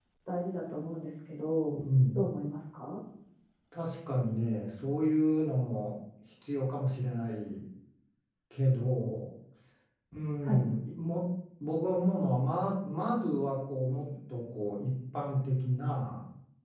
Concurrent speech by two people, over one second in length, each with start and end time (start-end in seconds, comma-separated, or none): none